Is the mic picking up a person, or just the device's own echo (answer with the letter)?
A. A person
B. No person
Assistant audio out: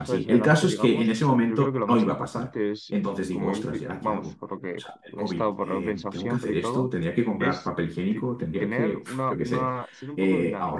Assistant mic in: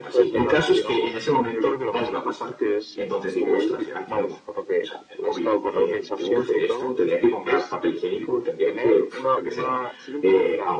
B